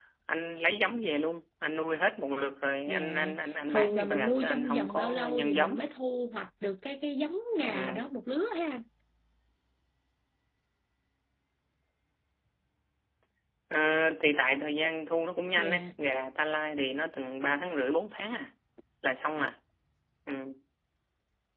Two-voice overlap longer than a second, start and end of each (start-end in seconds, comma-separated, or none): 3.7-5.8